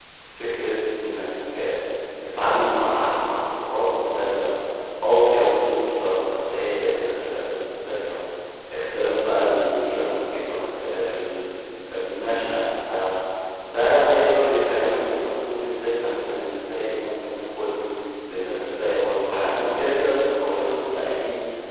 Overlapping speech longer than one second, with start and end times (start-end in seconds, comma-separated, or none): none